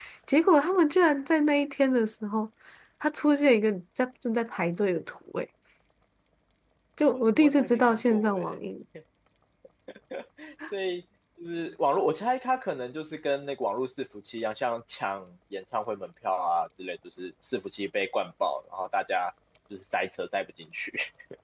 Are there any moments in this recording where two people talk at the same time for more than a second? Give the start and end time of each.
7.1-8.6

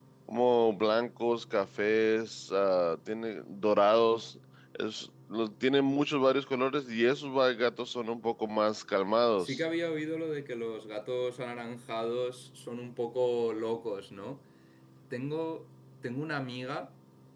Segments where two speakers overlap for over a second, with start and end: none

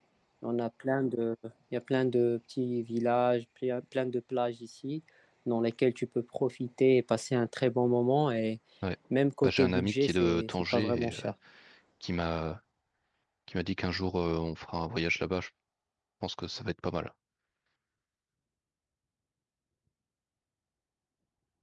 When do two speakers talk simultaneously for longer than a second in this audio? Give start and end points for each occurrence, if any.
9.4-11.3

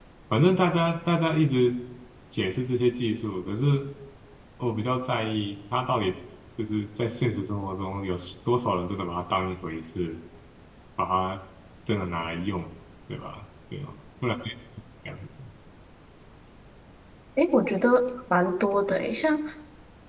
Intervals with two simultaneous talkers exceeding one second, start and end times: none

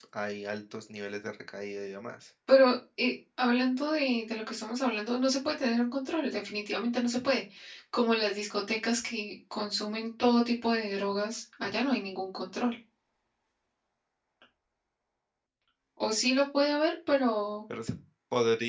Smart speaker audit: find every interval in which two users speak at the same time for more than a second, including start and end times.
none

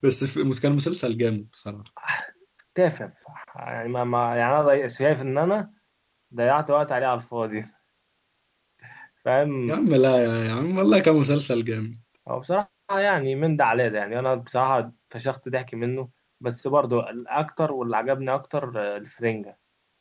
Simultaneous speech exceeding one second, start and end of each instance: none

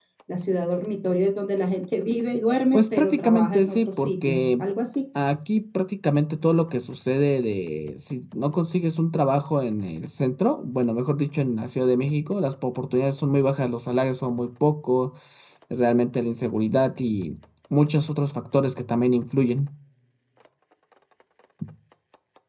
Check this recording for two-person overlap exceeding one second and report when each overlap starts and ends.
2.7-4.6

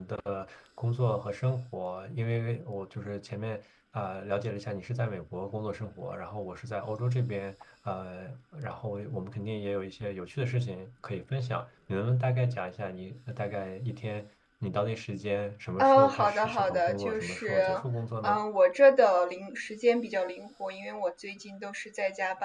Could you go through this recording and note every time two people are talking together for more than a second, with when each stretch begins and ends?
15.8-17.6

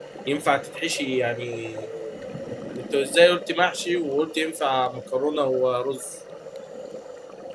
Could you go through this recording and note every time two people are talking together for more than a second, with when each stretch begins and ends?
none

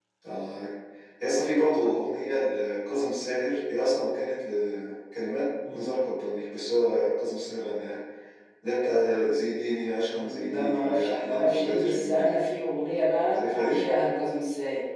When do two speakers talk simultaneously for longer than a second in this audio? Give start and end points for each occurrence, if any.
10.1-12.3

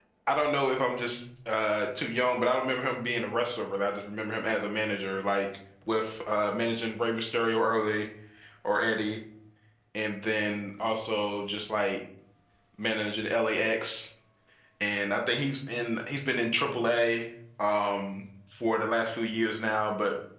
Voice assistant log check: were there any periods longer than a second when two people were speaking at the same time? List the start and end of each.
none

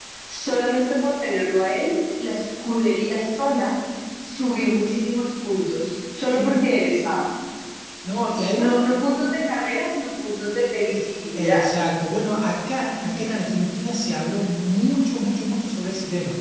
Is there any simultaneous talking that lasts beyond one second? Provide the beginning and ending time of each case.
none

